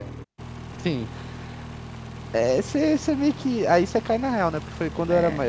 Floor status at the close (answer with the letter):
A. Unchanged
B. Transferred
A